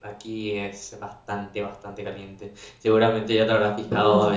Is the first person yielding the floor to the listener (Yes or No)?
No